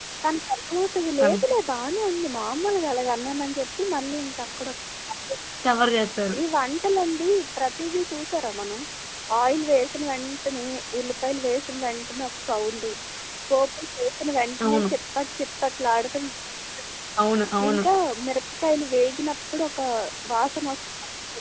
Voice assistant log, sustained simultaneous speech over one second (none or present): none